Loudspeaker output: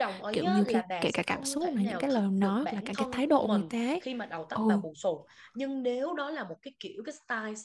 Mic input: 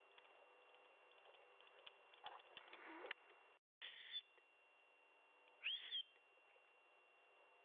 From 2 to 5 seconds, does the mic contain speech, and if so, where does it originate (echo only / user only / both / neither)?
neither